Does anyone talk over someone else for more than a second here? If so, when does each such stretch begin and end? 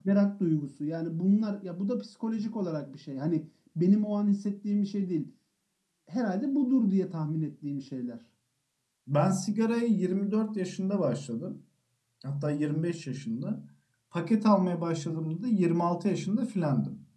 none

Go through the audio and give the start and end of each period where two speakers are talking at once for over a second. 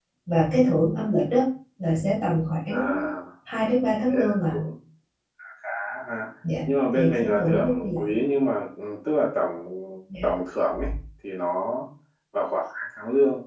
6.9-8.2

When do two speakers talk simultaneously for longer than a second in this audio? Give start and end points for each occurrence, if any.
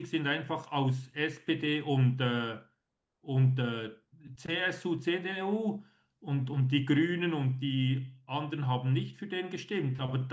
none

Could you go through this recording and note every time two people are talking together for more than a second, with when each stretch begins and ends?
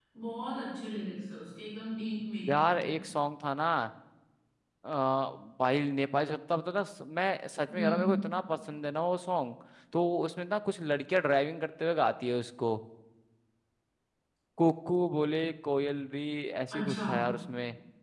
none

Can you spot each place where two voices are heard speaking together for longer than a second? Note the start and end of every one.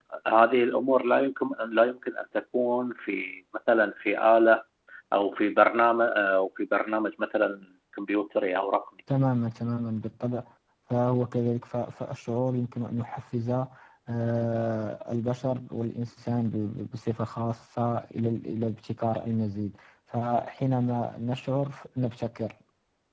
none

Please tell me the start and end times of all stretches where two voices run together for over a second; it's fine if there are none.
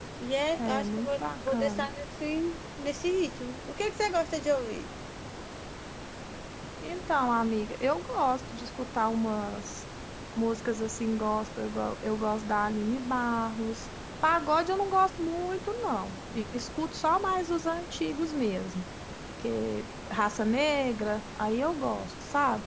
0.6-1.9

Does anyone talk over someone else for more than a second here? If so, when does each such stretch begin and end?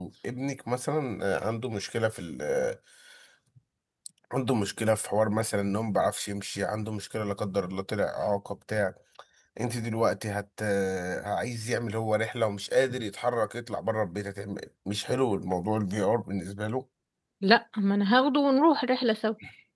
none

